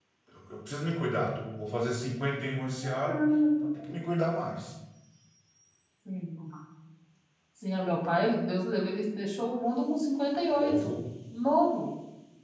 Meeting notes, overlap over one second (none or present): none